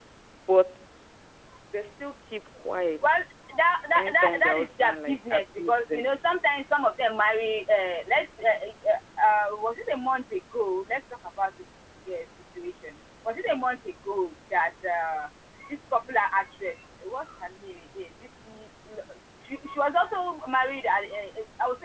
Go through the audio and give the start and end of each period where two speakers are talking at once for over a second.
4.0-6.1

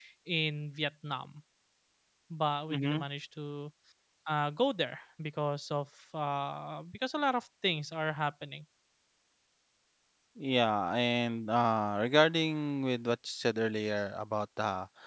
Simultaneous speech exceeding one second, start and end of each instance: none

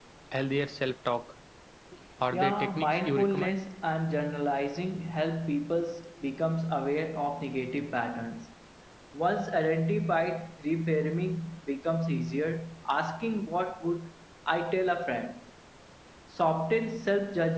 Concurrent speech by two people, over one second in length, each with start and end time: 2.3-3.6

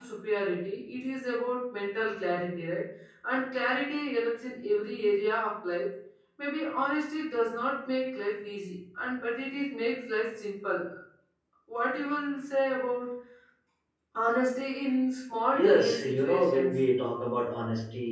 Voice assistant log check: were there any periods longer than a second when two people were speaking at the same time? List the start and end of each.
15.5-16.8

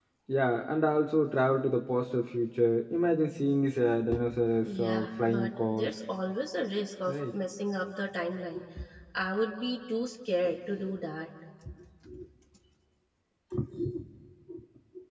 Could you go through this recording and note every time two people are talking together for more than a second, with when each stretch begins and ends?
4.6-5.9

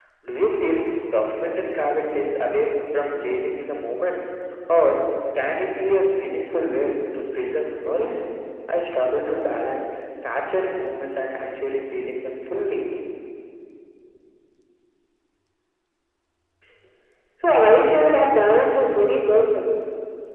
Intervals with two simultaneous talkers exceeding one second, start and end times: none

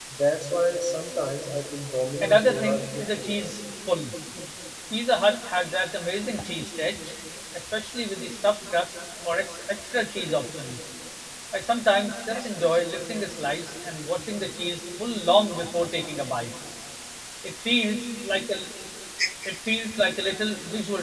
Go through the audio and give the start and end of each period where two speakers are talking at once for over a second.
2.2-3.5

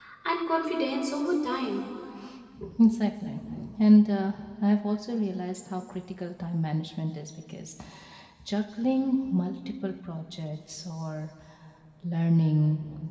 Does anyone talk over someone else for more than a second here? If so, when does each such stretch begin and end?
none

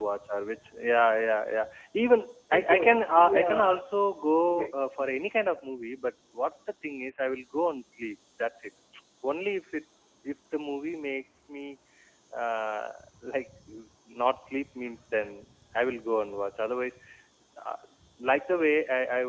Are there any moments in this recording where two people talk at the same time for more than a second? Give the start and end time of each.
2.5-3.8

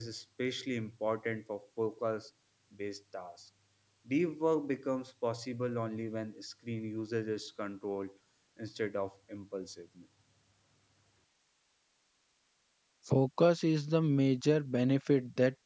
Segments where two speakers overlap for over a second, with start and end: none

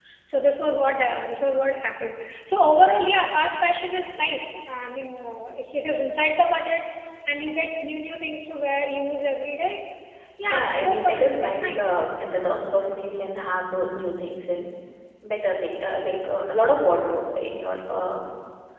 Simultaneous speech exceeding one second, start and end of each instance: 10.5-11.9

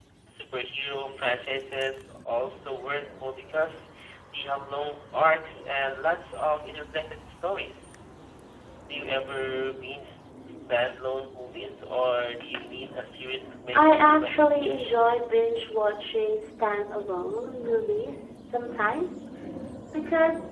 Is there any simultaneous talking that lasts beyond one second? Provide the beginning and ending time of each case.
13.7-14.9

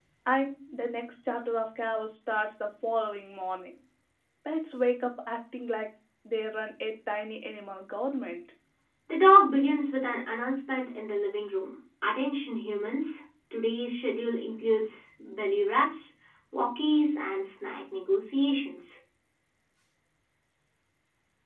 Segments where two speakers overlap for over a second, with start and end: none

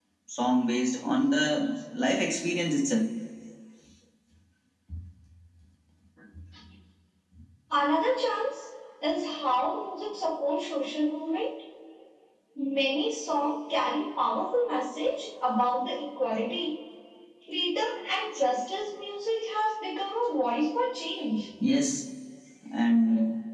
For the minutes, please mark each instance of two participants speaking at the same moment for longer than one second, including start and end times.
none

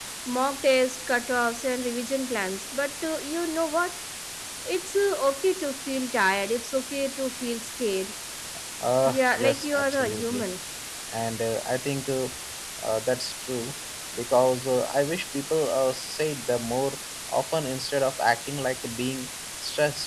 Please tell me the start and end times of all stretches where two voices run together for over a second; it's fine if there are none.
9.1-10.4

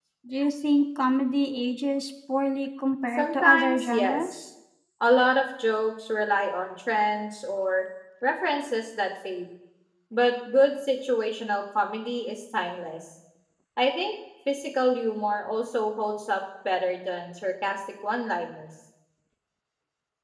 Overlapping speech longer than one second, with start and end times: 3.2-4.4

